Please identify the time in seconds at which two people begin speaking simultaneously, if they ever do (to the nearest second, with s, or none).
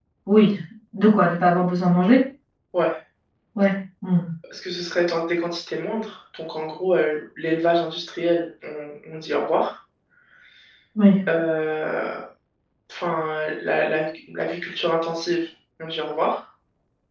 none